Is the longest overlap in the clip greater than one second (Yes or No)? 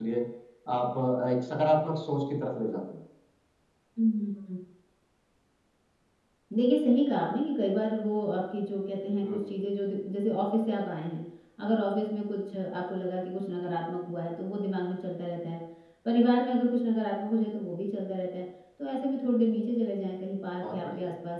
No